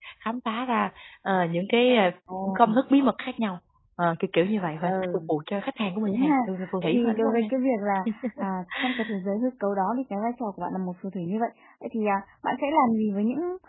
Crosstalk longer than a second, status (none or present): present